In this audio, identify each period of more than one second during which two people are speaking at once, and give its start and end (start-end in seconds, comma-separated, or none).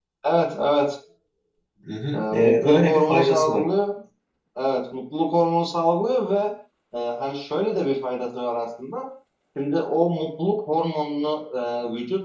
2.1-3.6